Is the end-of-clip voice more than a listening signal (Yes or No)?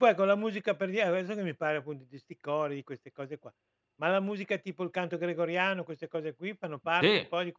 Yes